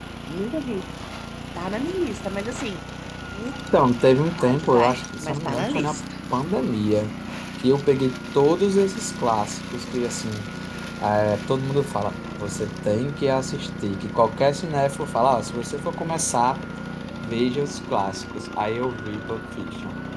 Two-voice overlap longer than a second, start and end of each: 4.4-6.0

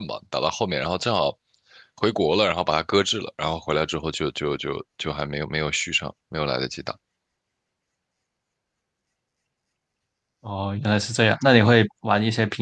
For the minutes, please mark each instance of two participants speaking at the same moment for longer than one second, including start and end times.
none

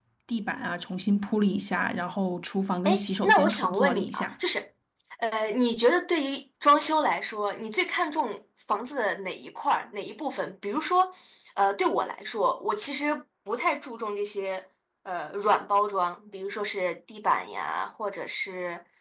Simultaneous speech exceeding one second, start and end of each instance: 2.8-4.3

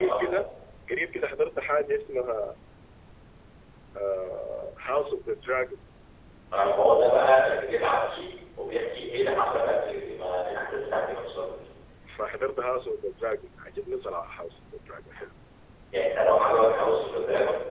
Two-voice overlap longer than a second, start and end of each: none

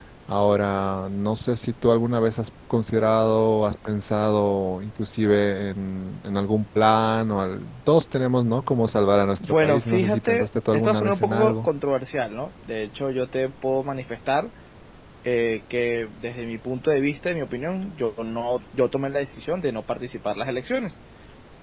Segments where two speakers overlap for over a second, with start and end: 9.4-11.7

